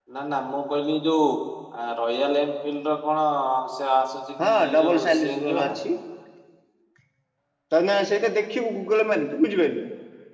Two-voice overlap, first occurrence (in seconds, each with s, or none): 4.4 s